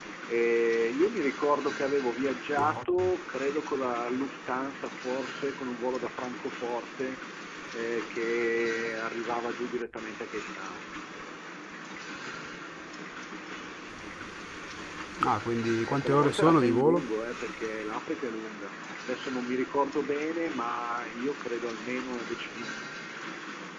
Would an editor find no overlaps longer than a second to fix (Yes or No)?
No